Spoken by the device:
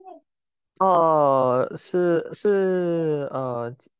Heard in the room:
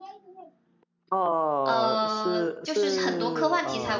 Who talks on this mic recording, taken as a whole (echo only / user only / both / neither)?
both